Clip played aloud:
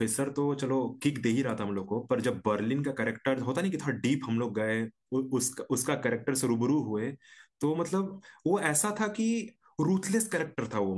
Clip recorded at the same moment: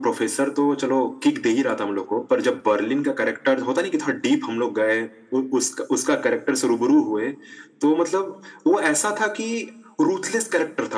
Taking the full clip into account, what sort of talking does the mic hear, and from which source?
echo only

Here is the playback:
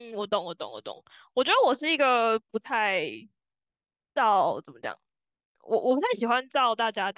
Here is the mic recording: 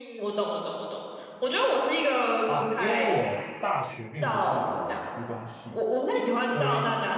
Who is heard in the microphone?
both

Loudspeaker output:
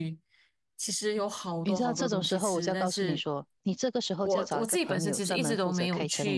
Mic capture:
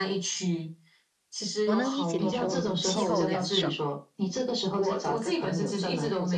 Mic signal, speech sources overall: both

